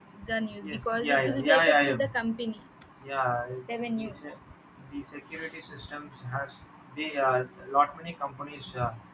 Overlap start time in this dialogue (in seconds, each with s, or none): 0.6 s